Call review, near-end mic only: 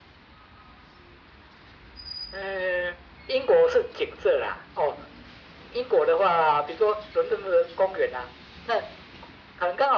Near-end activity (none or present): none